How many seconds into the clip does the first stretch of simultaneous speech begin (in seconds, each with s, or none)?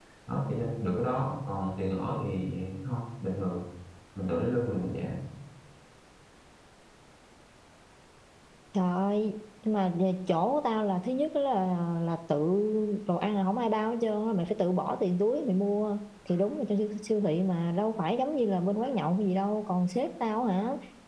none